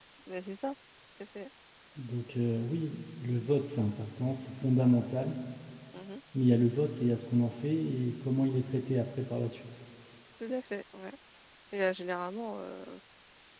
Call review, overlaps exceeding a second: none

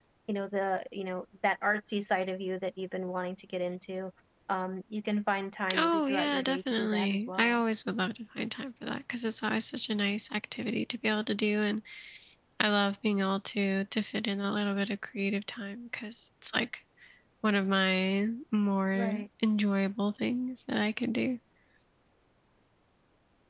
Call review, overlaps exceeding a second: present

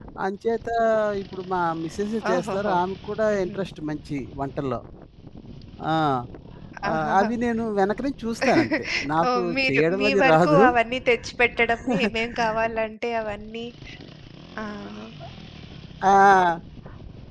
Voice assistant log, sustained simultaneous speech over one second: present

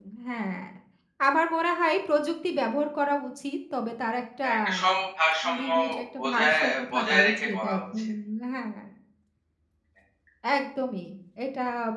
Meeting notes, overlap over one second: present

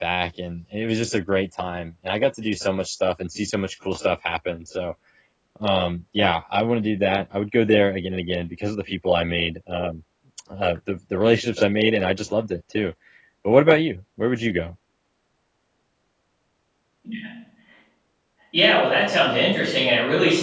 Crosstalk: none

